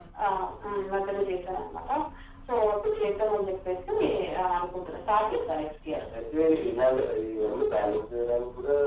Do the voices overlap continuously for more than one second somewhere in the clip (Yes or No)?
No